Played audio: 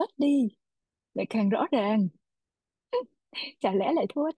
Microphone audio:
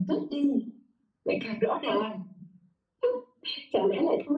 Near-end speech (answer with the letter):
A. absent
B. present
A